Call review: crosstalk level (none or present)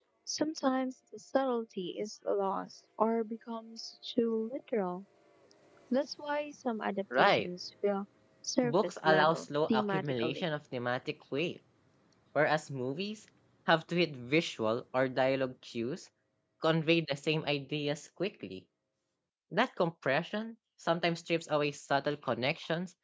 present